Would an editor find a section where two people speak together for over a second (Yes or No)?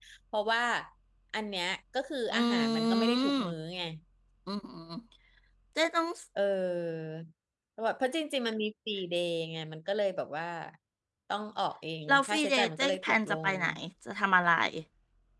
Yes